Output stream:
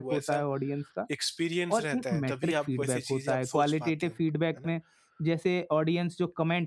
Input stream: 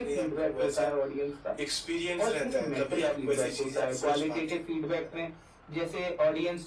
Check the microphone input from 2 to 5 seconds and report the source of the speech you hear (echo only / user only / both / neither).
echo only